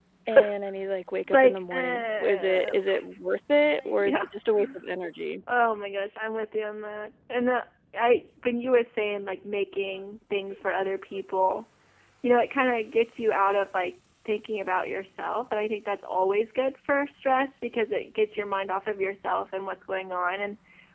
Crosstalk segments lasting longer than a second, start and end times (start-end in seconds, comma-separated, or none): 1.3-2.8